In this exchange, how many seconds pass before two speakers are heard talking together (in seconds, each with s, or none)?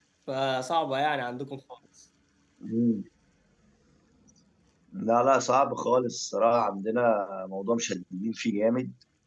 none